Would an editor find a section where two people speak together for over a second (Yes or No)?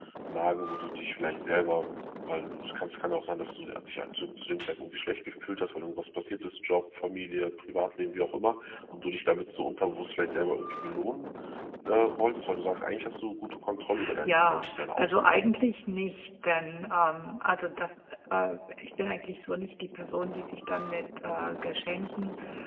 Yes